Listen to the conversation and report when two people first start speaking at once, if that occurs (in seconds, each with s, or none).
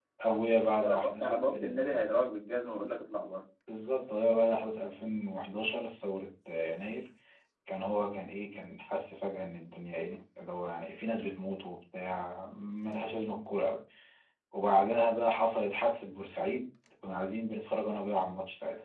0.8 s